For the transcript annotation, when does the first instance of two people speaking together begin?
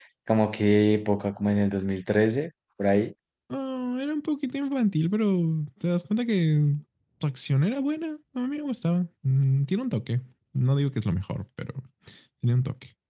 none

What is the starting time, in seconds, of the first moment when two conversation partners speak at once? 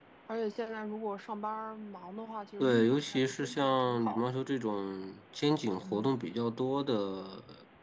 2.6 s

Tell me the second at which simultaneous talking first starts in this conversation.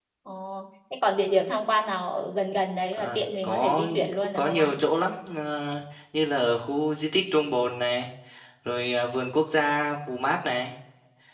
2.9 s

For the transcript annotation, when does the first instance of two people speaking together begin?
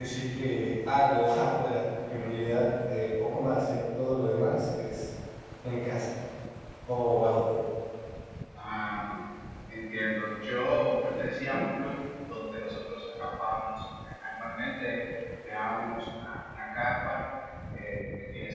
none

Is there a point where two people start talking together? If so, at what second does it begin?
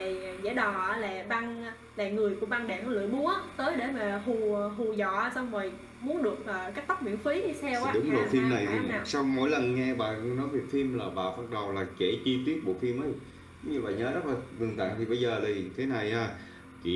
7.8 s

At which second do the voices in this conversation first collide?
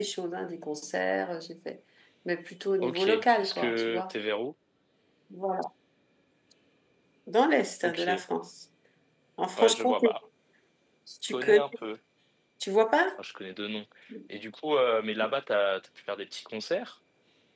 2.8 s

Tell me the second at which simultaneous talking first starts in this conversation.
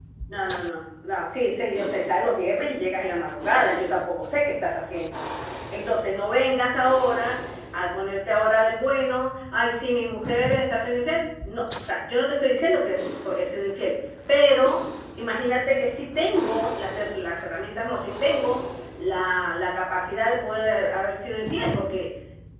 none

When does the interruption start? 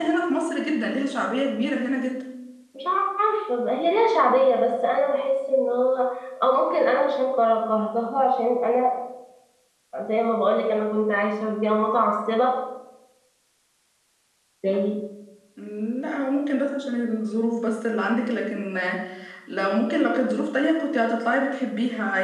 none

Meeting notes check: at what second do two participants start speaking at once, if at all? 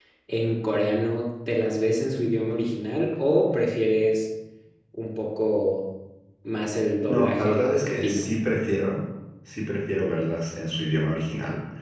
7.1 s

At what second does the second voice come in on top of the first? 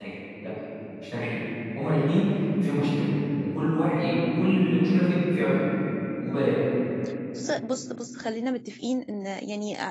none

